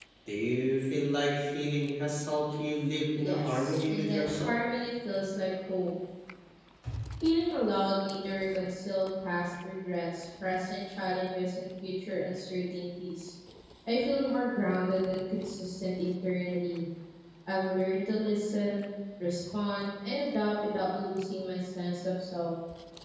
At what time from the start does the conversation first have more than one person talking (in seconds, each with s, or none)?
3.2 s